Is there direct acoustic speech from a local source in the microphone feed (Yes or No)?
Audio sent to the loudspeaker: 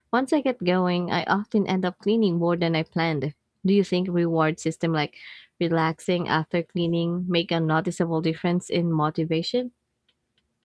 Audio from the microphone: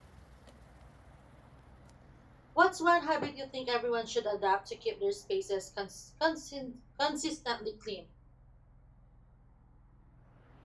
Yes